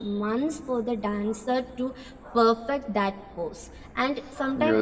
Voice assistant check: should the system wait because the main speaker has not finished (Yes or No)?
Yes